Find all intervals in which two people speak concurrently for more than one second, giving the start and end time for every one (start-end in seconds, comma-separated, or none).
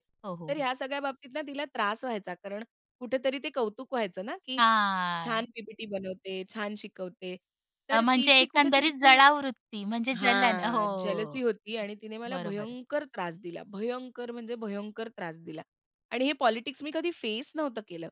7.9-9.2, 10.2-11.4